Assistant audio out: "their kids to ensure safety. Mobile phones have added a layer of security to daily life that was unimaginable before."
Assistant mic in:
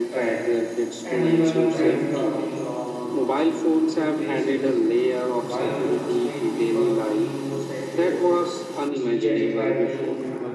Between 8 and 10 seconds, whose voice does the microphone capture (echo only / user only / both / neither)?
both